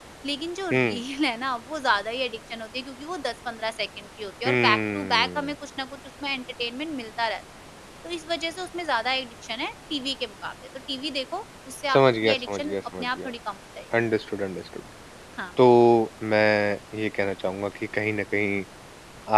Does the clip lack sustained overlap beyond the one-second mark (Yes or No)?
No